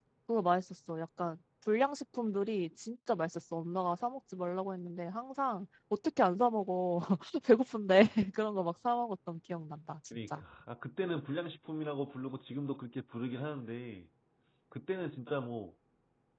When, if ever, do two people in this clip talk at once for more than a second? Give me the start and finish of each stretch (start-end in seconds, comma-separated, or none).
none